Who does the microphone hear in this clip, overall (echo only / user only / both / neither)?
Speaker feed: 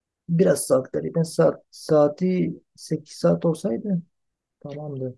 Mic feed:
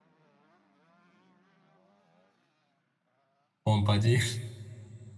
user only